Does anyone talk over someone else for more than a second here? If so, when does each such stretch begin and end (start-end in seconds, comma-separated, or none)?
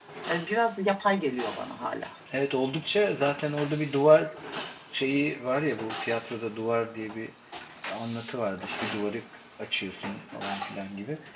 none